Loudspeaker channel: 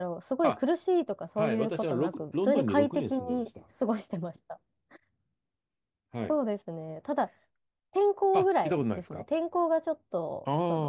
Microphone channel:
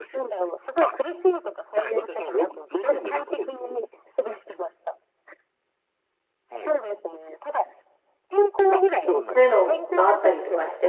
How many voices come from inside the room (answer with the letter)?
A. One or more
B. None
A